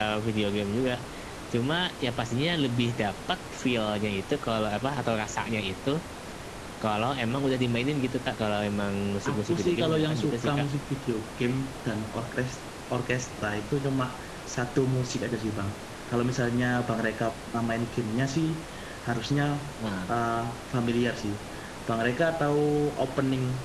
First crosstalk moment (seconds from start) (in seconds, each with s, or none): 9.2 s